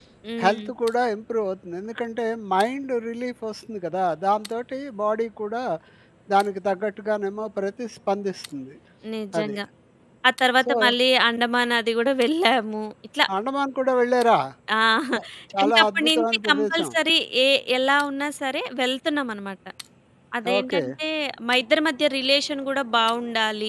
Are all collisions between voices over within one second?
No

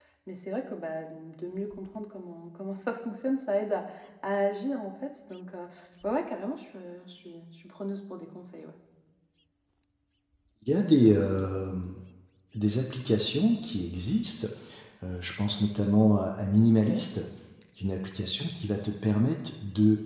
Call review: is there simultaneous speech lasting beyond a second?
No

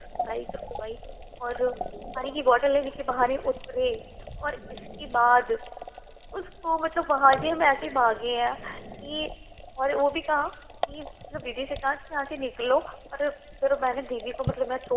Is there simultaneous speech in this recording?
No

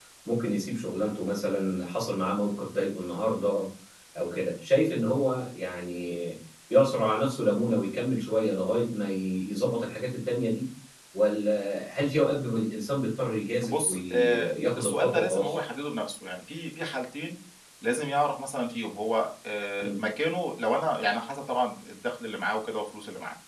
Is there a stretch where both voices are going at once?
Yes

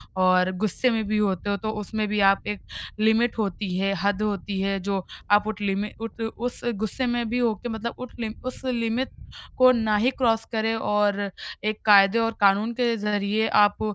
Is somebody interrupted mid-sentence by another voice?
No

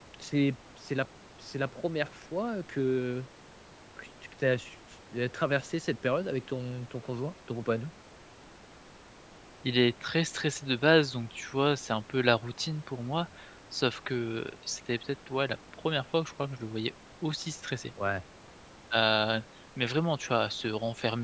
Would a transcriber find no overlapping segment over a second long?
Yes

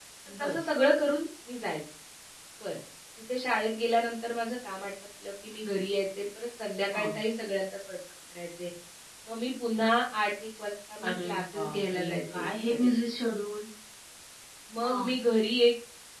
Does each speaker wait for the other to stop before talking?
No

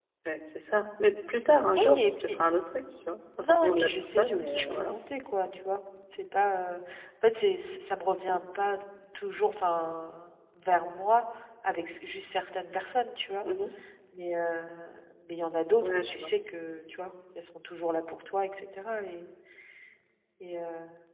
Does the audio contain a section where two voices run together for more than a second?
Yes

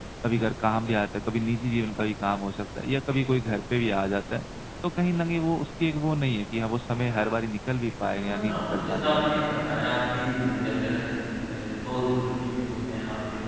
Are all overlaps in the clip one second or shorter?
No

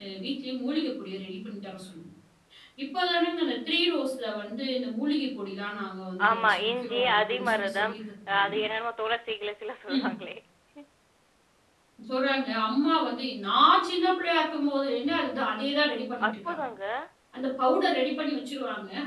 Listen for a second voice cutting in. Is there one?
Yes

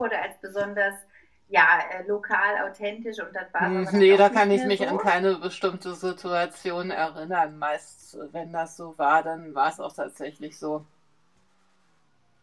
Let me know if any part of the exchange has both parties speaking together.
Yes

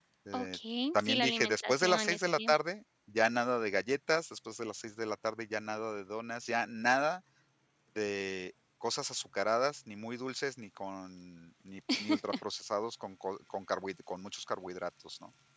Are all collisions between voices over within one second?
No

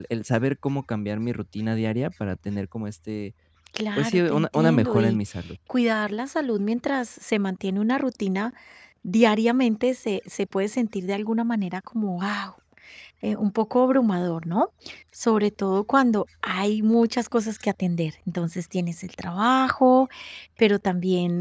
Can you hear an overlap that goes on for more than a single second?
Yes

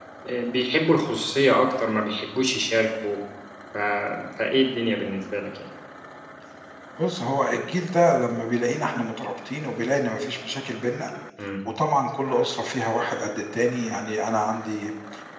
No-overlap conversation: Yes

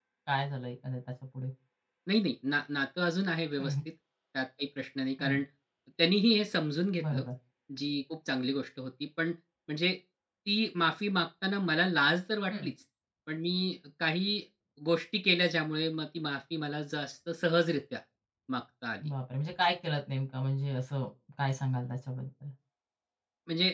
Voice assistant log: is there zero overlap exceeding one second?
Yes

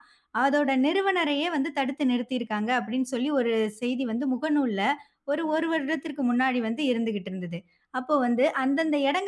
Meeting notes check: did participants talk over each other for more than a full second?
No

